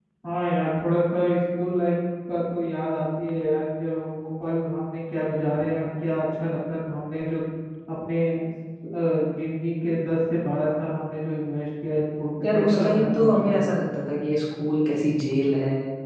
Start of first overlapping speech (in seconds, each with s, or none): 12.4 s